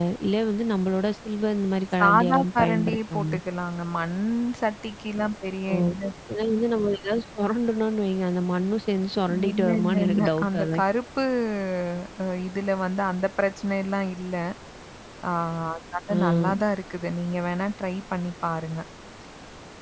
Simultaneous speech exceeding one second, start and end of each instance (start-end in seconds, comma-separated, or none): 2.0-3.4, 9.5-10.8